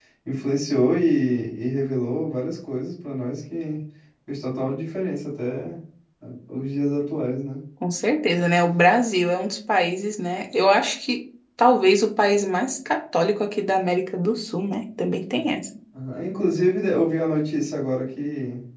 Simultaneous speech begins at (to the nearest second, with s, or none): none